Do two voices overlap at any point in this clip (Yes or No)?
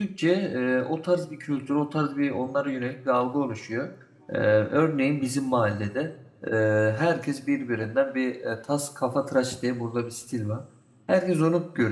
No